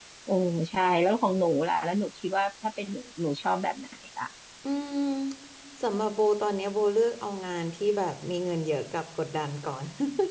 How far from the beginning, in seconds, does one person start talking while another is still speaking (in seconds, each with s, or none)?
none